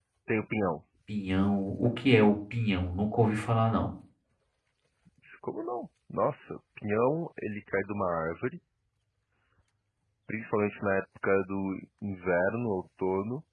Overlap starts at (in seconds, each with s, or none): none